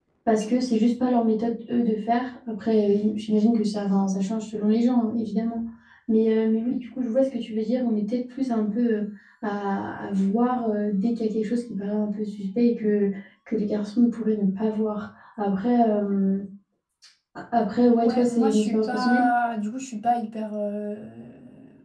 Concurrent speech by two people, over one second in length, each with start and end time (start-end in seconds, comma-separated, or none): 18.0-19.3